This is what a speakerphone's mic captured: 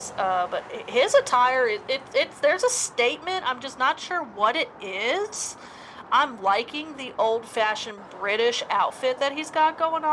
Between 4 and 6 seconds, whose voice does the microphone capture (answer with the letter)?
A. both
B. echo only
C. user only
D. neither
B